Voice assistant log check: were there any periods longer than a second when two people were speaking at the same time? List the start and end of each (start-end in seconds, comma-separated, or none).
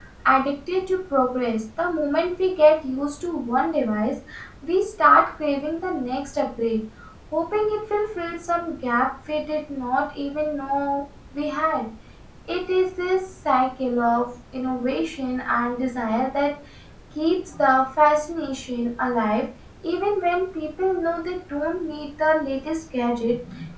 none